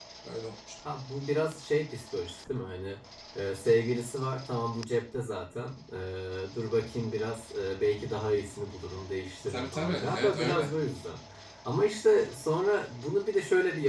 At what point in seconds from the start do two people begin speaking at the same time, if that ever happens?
9 s

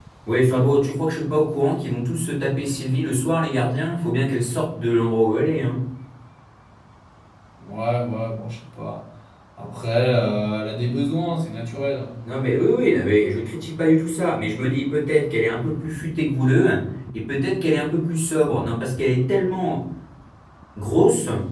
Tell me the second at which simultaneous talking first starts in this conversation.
none

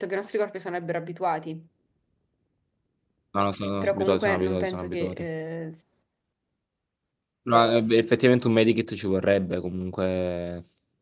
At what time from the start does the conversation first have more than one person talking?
4 s

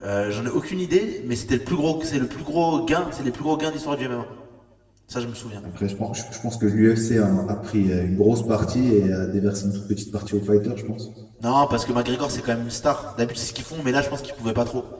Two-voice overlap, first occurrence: none

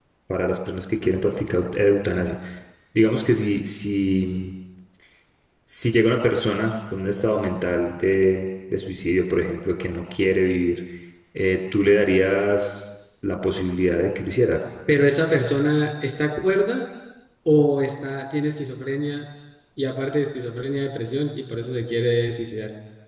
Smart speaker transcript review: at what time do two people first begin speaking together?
none

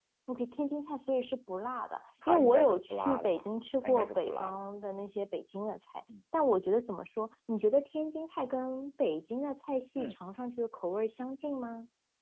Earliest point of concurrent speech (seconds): 2 s

